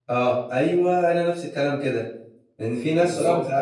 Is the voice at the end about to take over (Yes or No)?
No